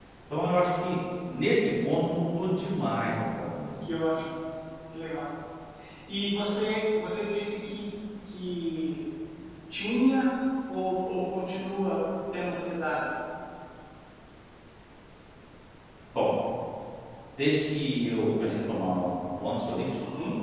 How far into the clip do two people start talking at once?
none

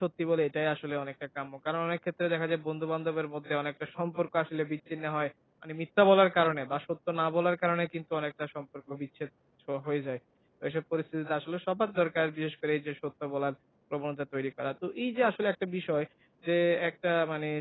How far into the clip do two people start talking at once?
none

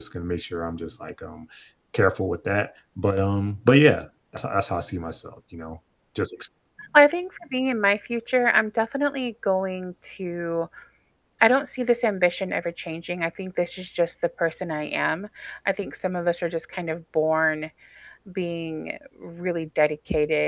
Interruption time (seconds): none

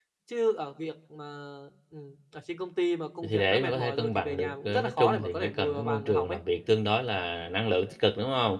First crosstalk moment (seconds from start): 3.2 s

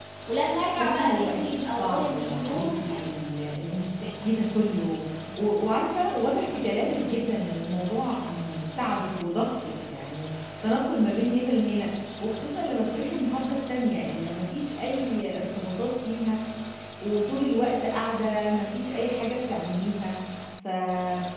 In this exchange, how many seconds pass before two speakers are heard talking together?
0.8 s

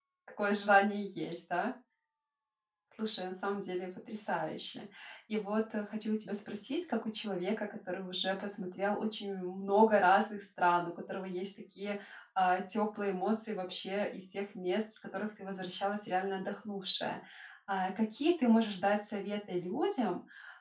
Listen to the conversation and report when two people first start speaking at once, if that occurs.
none

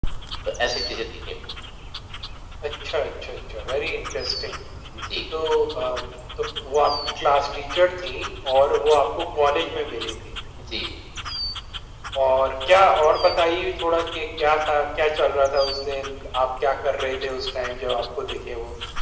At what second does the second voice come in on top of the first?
none

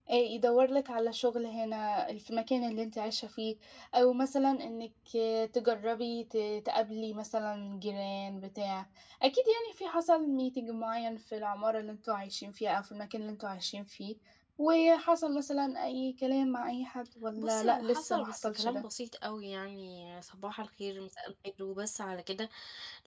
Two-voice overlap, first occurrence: 17.4 s

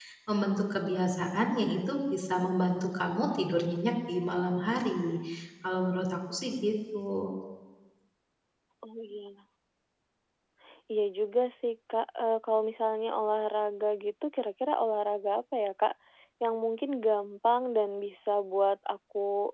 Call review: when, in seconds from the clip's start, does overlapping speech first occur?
none

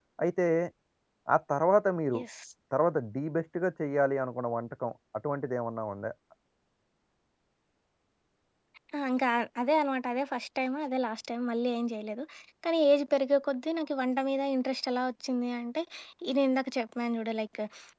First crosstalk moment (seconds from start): none

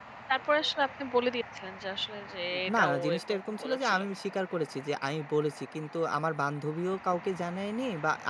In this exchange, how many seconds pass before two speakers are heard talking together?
2.5 s

